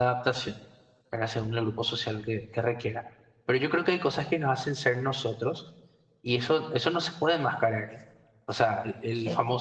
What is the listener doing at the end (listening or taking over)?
listening